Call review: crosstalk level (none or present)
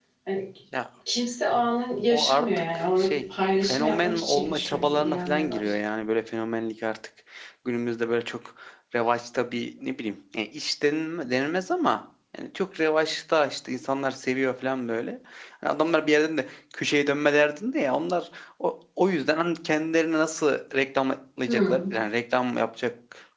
present